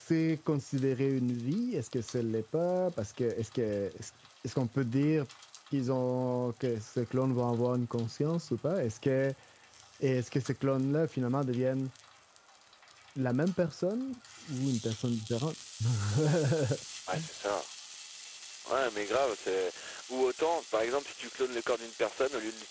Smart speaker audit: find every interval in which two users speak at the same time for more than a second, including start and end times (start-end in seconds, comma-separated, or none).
none